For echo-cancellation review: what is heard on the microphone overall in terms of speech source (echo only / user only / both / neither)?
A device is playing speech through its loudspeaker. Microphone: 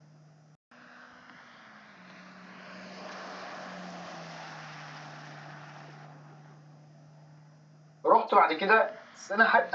user only